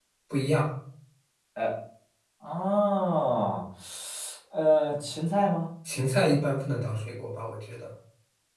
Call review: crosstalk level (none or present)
none